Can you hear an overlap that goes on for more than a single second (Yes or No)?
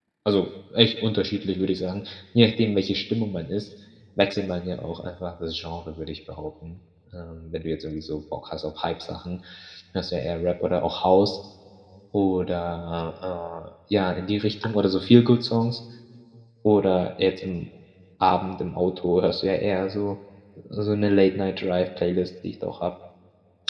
No